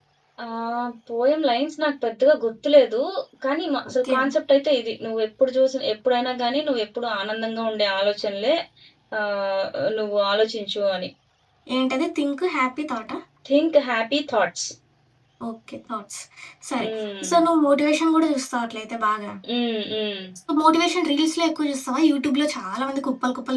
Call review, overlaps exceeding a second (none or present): none